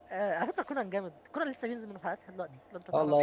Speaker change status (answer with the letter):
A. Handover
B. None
A